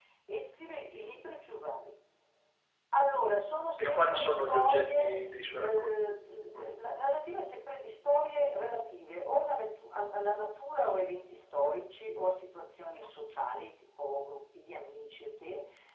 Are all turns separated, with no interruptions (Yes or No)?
No